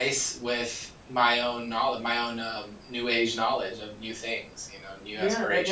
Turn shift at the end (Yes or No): Yes